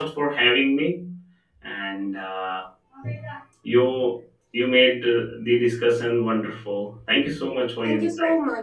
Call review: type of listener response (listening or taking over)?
taking over